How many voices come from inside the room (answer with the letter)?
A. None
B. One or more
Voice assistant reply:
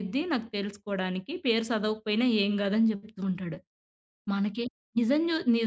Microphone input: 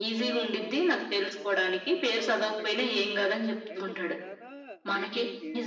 B